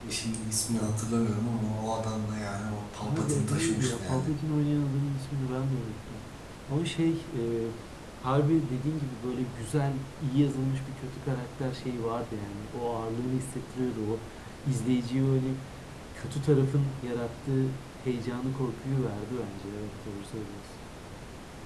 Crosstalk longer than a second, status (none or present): present